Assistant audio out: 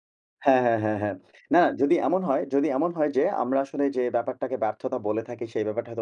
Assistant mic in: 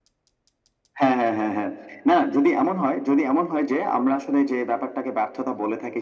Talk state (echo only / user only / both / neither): echo only